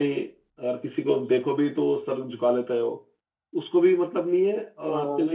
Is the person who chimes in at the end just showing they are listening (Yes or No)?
Yes